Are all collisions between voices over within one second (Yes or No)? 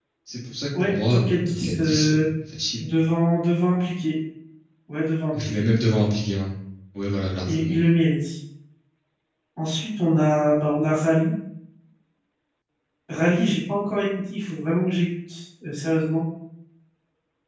No